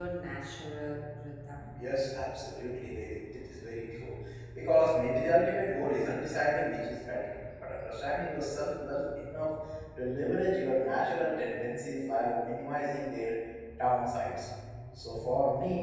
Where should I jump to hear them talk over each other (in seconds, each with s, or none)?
none